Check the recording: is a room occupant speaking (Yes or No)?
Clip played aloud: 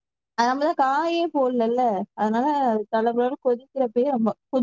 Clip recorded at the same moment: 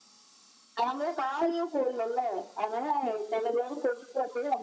No